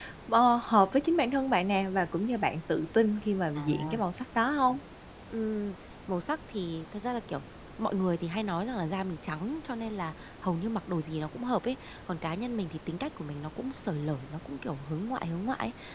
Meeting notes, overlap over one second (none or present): none